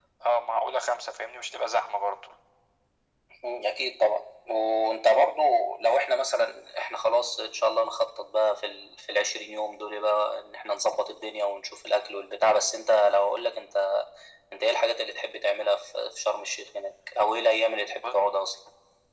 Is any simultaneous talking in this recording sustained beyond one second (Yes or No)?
No